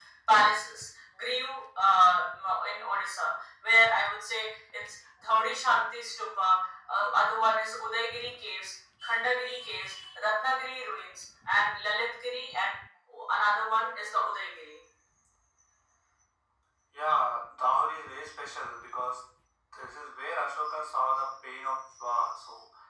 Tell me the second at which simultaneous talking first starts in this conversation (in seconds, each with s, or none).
none